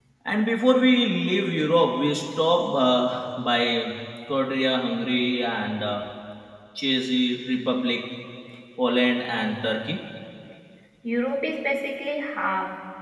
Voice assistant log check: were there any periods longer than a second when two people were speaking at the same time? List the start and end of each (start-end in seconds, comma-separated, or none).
none